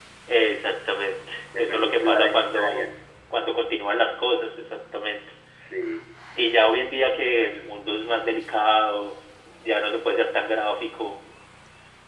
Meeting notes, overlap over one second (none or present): present